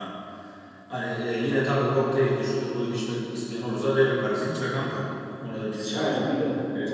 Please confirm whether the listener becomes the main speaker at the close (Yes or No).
Yes